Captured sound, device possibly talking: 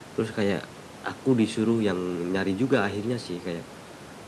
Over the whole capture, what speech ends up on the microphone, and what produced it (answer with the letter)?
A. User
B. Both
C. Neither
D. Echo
D